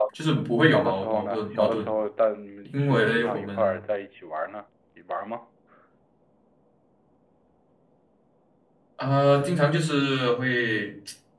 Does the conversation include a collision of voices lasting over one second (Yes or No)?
Yes